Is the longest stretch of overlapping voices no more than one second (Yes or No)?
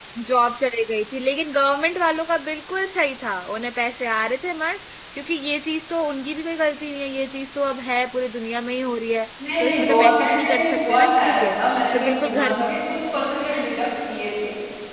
No